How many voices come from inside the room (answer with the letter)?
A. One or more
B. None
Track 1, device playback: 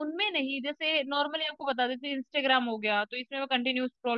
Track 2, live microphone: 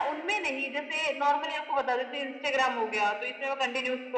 B